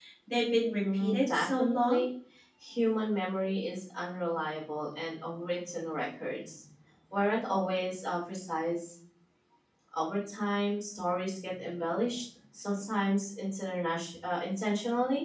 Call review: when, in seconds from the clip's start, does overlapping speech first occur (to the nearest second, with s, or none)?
1 s